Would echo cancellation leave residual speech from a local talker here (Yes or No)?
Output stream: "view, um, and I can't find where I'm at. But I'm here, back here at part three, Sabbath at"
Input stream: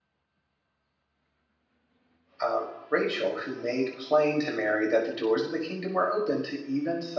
Yes